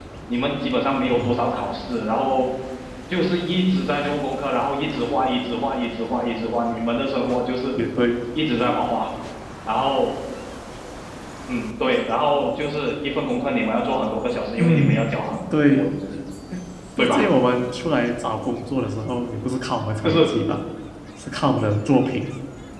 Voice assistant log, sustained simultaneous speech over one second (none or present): none